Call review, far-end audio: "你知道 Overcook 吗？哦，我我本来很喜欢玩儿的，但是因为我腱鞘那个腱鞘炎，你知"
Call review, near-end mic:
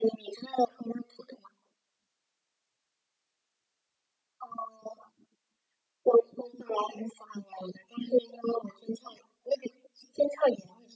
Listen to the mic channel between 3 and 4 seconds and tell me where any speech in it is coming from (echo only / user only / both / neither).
neither